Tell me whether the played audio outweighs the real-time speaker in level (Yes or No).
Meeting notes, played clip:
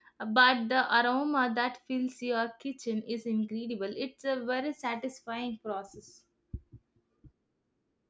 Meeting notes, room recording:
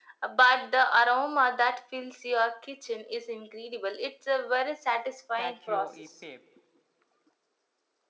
Yes